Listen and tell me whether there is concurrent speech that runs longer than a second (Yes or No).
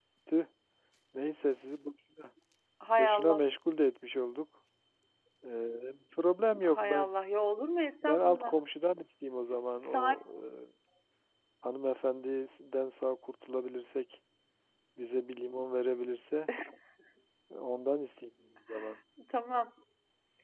No